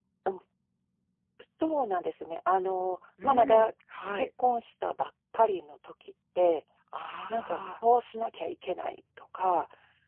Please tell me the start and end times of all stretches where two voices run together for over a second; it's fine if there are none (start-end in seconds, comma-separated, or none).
none